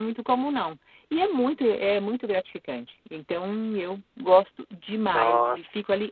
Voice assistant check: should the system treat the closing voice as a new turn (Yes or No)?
No